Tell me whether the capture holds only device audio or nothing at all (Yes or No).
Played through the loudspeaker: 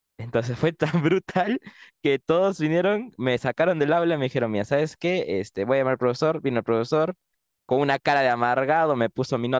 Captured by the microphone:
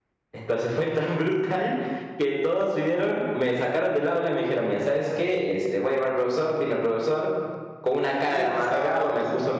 No